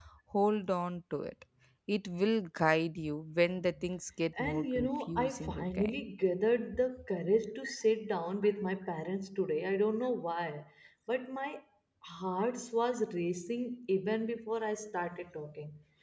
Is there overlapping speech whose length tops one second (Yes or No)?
Yes